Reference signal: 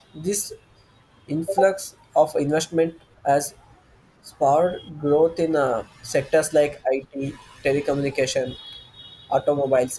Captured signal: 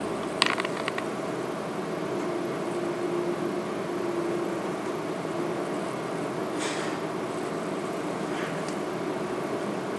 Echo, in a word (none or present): none